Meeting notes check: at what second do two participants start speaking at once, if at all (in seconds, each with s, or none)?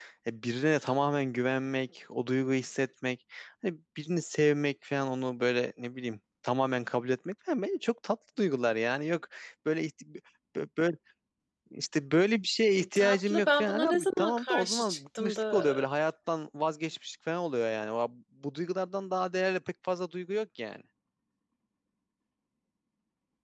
12.8 s